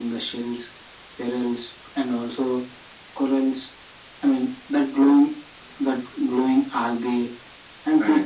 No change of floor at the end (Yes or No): Yes